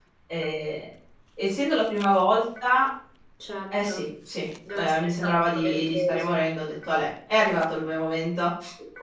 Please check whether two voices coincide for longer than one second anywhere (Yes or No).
Yes